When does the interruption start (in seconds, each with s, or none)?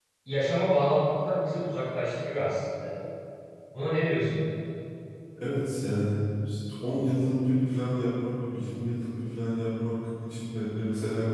none